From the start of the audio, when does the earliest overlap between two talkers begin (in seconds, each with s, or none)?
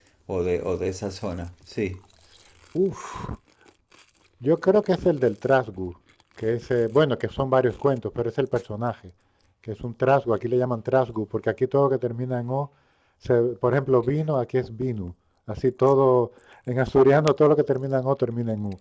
none